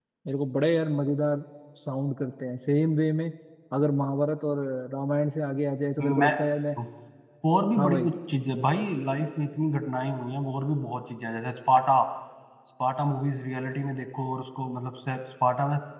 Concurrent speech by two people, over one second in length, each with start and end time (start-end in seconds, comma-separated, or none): none